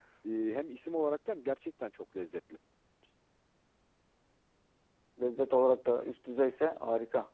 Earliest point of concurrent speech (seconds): none

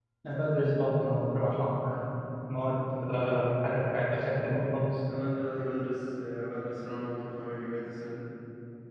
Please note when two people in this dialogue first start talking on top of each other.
none

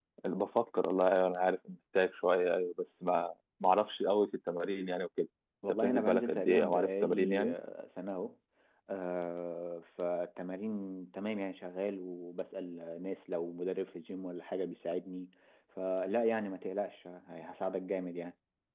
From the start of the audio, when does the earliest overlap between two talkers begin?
5.6 s

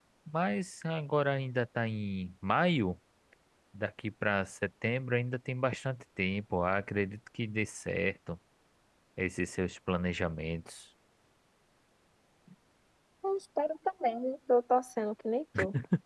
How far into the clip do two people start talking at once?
none

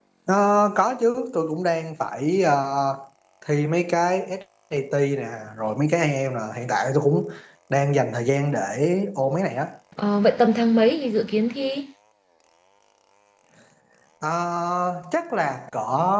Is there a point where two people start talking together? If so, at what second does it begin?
none

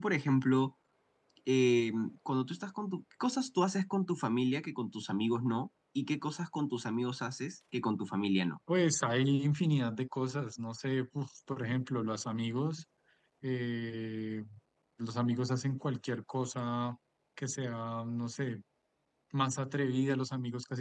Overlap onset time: none

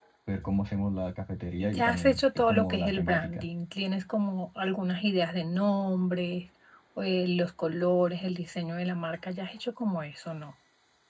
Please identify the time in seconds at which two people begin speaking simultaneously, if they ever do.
1.6 s

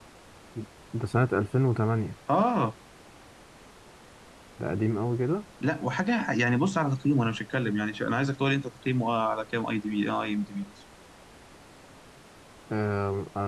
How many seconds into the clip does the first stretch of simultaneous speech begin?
none

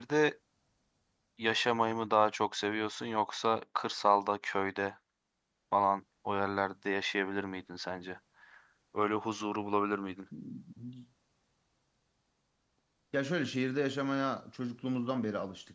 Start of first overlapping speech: none

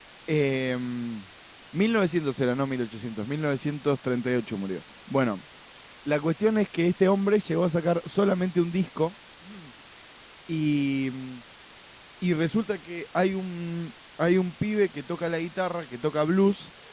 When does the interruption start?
none

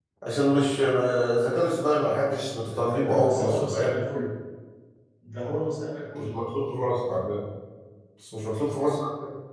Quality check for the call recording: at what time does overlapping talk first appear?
2.7 s

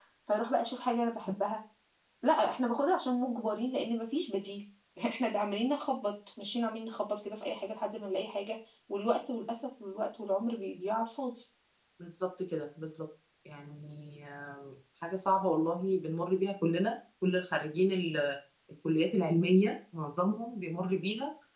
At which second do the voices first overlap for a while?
none

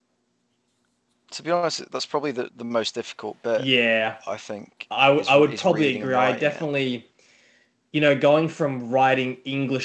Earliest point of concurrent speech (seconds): 5.2 s

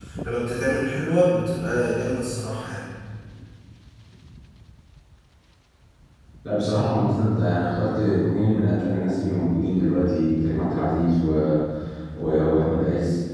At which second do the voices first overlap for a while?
none

